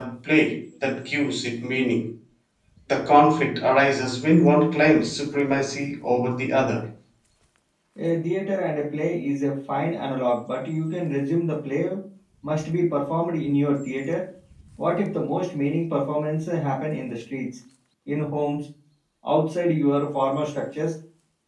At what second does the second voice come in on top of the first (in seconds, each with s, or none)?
none